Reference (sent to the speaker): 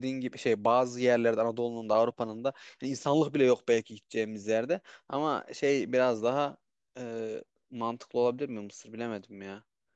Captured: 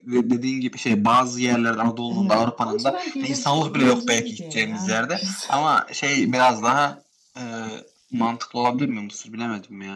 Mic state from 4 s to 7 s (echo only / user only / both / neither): both